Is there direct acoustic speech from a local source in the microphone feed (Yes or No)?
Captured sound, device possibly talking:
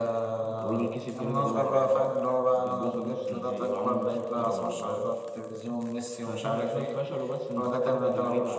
No